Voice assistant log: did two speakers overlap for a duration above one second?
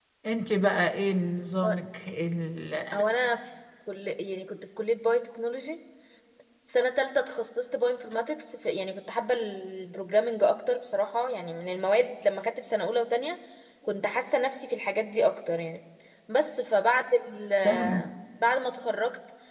No

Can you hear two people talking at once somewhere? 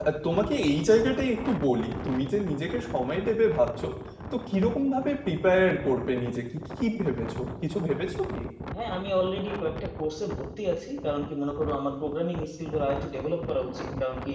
No

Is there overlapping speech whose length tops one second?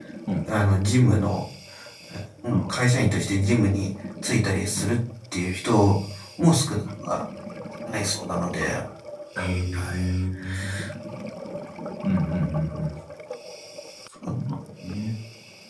No

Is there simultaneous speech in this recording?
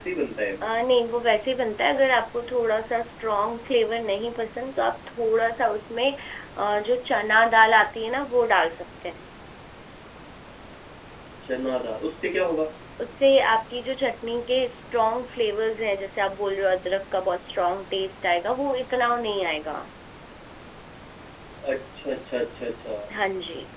No

